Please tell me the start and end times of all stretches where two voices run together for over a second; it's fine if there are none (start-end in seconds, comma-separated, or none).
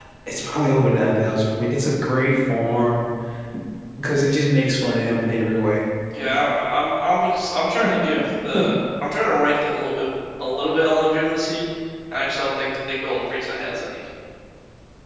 none